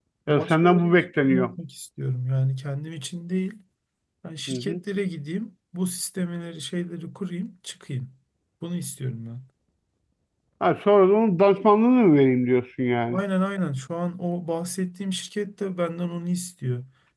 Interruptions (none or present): present